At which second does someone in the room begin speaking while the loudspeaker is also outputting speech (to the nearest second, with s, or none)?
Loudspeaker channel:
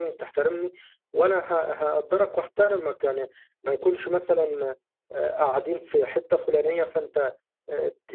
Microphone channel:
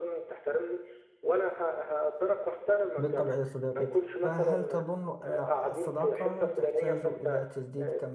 3 s